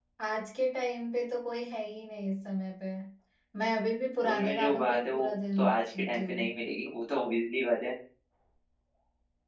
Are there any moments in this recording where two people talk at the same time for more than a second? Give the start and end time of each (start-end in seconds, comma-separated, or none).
4.3-6.5